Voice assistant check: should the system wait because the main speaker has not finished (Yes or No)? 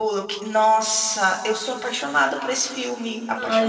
No